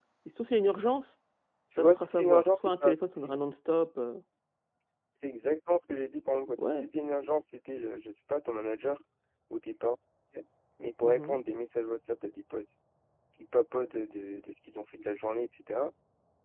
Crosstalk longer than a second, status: present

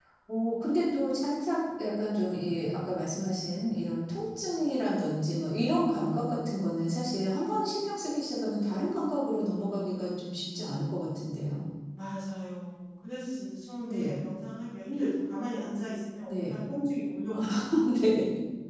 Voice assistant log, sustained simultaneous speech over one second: none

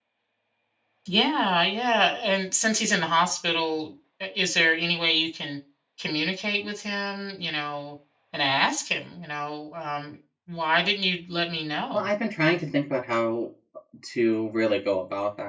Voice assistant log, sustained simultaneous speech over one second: none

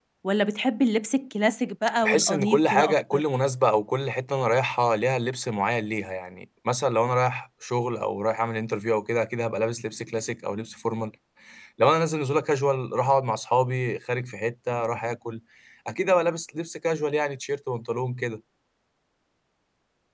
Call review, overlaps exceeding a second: present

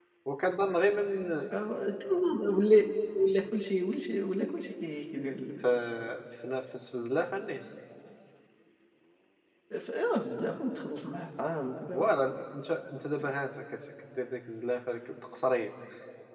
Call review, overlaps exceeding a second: none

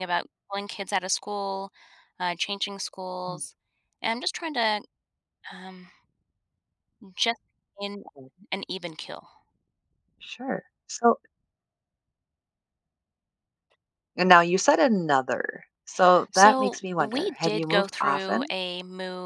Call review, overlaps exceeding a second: present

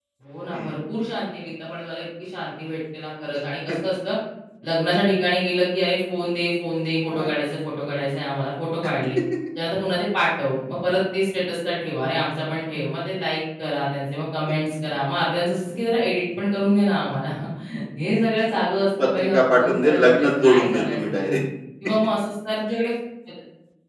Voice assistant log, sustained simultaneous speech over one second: present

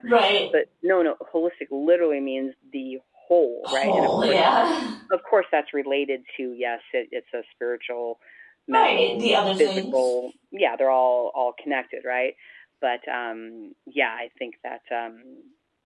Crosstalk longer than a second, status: present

